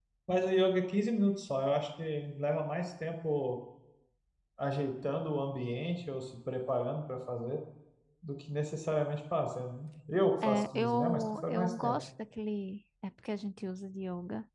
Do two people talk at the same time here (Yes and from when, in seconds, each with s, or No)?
Yes, from 10.4 s